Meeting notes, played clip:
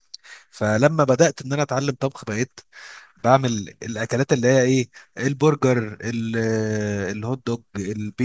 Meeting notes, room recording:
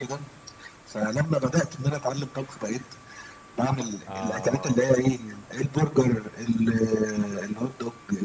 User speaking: Yes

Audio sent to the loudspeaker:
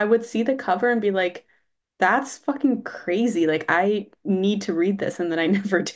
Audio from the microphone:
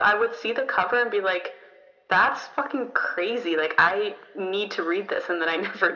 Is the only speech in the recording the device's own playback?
Yes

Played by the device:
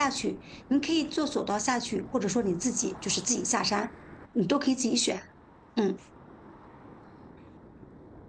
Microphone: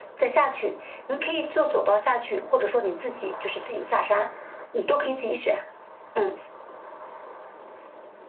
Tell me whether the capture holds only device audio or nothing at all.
Yes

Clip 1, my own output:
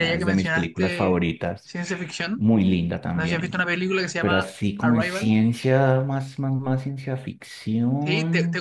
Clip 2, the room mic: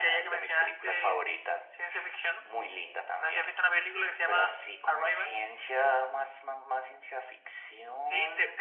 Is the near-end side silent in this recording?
Yes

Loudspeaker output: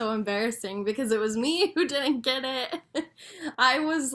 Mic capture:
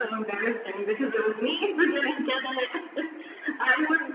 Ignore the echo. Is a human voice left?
No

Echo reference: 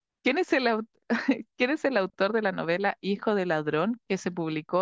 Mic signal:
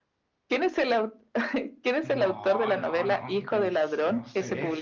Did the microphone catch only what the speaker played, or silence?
No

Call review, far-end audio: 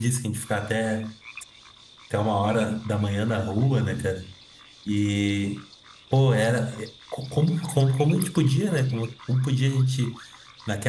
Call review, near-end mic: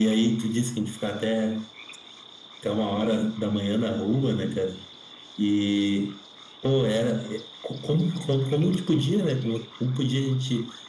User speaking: No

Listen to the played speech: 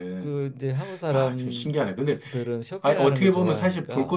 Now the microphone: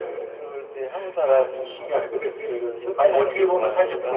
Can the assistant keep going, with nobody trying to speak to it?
Yes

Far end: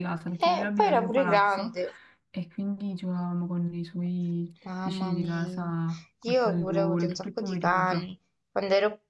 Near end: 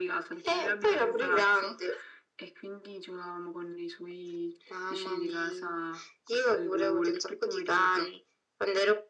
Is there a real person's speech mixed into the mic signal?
No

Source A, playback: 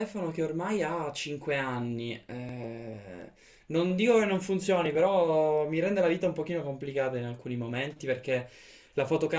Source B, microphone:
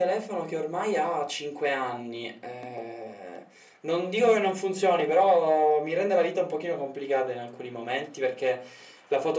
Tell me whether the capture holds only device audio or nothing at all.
Yes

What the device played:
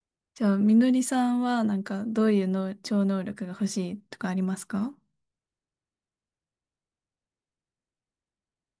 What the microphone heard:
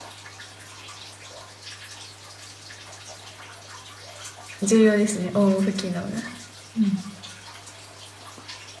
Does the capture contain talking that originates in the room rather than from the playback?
Yes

